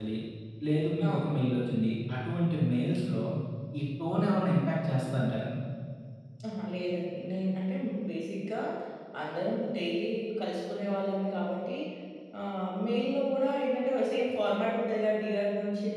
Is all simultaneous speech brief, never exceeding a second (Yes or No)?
Yes